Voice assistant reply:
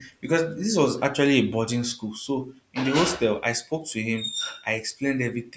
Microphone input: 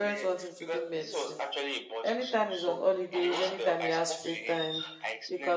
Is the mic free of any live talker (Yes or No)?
No